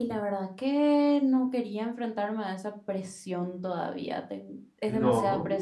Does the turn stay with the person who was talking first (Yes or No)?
Yes